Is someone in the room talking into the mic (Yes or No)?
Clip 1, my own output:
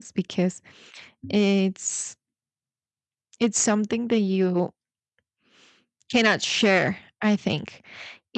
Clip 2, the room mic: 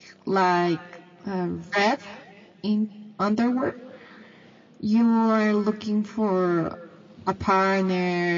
Yes